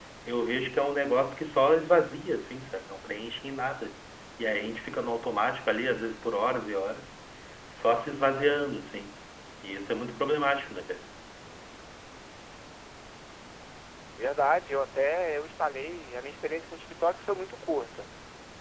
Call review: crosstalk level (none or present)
none